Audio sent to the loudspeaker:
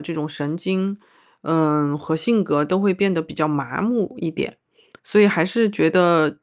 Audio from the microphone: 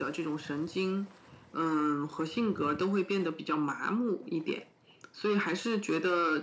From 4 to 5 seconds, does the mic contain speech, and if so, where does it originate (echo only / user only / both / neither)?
echo only